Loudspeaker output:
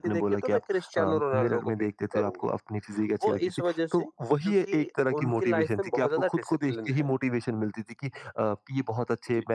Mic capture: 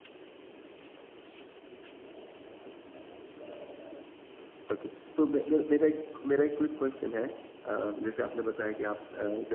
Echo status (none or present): none